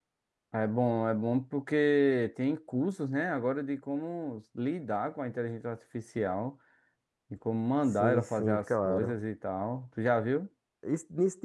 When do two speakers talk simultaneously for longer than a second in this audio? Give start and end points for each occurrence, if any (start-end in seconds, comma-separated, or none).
7.9-9.2